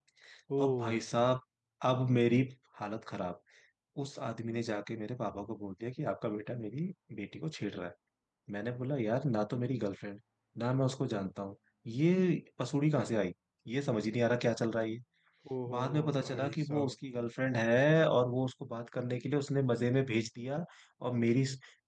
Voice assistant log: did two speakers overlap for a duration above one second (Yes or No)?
Yes